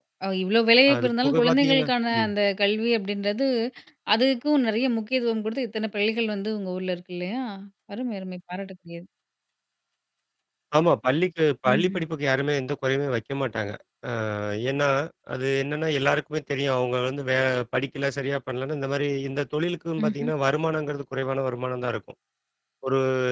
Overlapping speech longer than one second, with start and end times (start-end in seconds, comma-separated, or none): 0.9-2.3